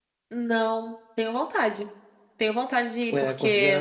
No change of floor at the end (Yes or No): No